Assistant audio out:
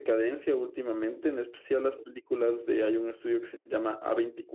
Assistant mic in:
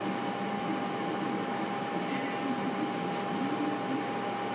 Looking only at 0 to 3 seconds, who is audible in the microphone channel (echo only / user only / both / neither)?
neither